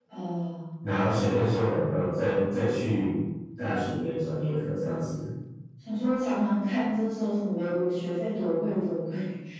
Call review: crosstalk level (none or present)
none